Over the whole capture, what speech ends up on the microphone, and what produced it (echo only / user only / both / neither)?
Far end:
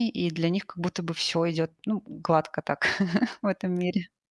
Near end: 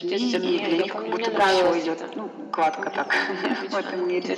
both